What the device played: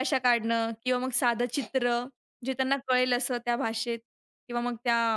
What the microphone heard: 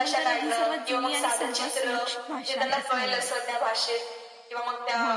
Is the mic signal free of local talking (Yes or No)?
No